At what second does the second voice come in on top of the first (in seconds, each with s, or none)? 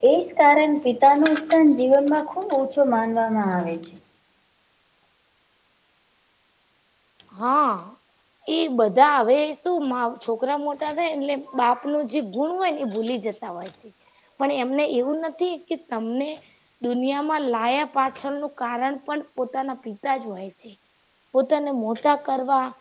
none